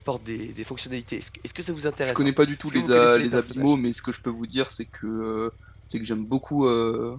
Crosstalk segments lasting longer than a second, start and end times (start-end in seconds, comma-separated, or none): 2.0-3.7